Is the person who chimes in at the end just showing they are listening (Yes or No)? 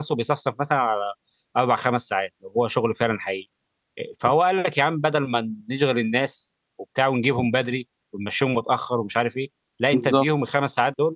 Yes